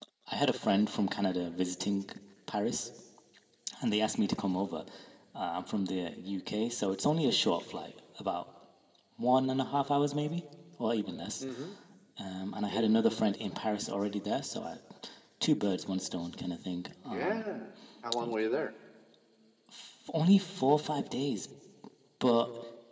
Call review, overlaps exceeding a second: none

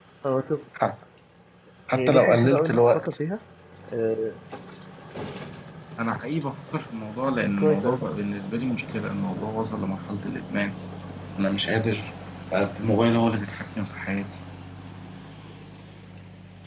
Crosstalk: present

